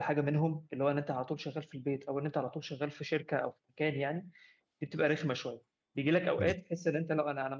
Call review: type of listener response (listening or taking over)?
listening